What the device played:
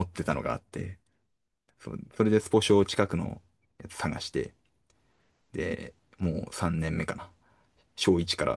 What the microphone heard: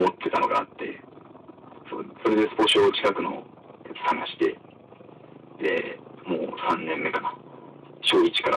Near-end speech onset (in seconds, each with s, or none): none